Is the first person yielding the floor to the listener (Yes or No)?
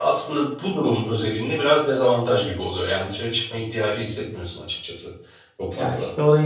Yes